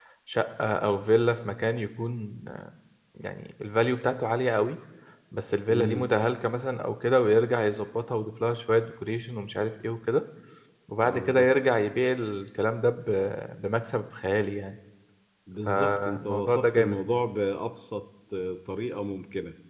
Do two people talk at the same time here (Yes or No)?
Yes